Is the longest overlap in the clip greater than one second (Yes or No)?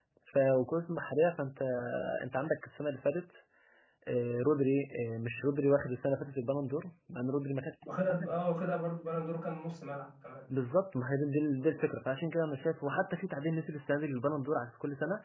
No